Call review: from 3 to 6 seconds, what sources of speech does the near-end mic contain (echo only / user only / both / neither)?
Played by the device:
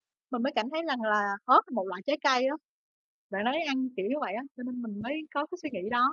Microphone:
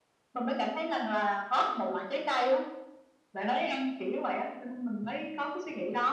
echo only